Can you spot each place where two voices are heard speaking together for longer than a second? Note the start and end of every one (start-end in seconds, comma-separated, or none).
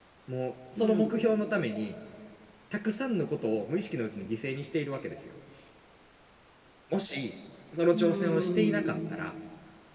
7.9-9.2